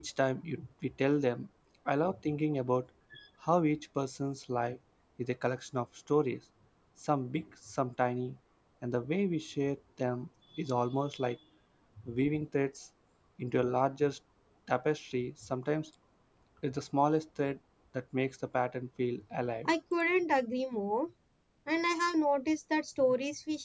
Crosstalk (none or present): none